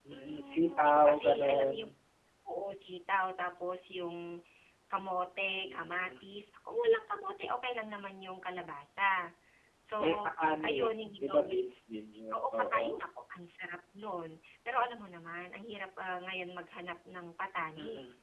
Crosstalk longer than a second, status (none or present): present